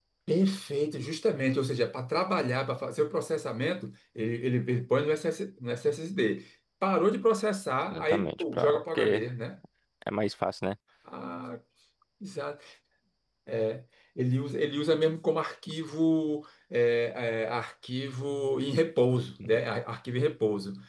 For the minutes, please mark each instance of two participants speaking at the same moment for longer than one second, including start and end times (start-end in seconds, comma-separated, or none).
7.9-9.2